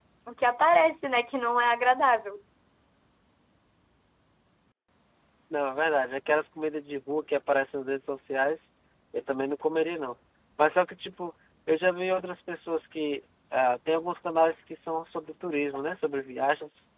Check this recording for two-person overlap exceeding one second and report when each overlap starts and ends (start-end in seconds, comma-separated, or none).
none